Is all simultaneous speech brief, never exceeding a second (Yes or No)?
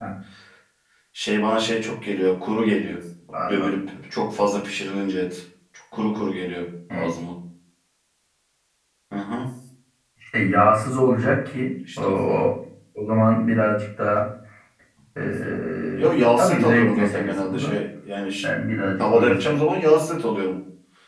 No